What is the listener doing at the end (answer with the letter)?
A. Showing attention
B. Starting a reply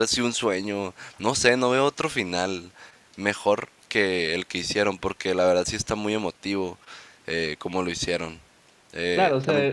B